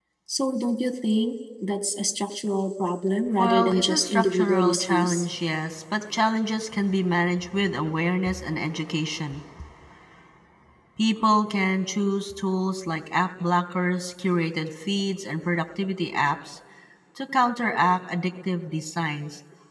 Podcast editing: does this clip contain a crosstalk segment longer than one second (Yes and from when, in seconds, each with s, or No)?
Yes, from 3.4 s